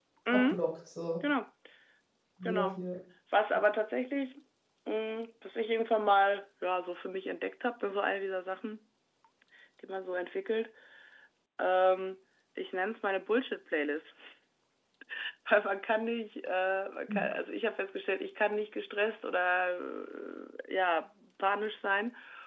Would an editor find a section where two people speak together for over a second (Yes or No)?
No